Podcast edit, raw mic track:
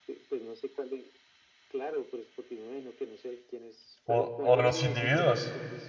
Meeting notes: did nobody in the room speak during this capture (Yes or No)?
No